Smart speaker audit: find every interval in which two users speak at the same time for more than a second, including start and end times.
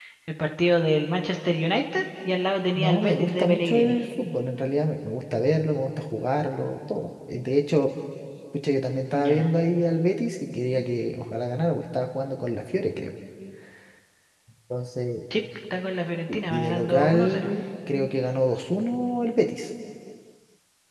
2.7-4.0, 16.3-17.5

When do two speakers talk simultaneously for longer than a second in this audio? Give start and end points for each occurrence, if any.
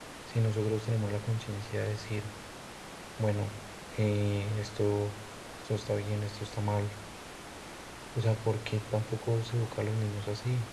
none

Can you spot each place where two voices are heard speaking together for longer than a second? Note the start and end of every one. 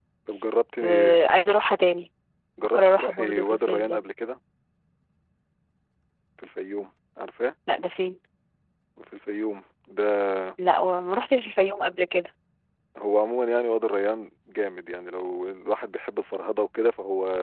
2.7-4.0

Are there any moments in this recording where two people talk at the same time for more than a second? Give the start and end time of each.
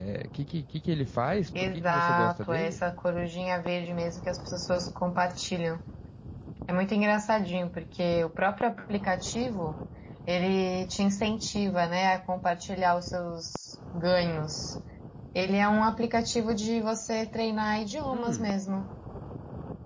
1.6-2.8

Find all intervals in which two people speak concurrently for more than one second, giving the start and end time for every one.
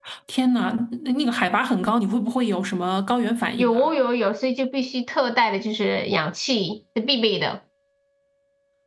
none

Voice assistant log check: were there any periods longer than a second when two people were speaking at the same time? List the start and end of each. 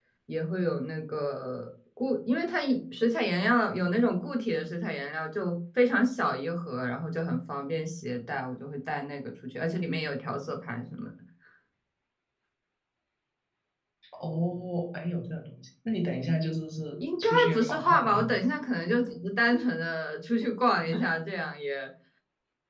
17.0-18.4

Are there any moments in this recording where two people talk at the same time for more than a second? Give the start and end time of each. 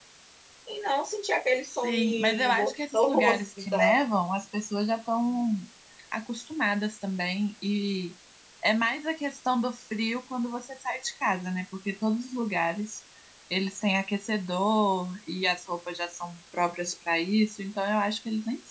1.8-3.9

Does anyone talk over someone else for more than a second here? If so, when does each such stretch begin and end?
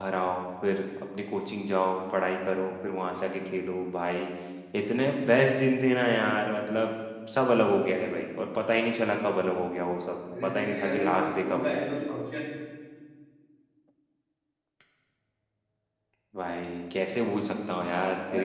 10.4-11.7

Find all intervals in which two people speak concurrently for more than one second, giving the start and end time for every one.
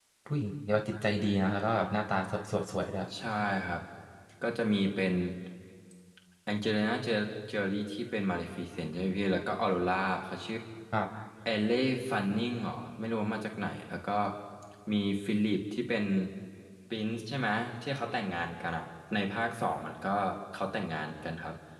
none

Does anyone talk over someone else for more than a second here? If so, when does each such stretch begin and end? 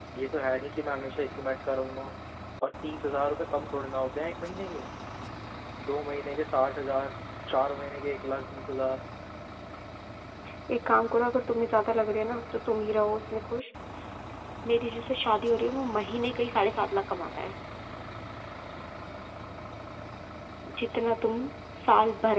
none

